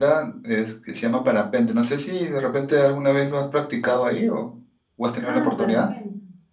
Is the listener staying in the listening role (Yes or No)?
No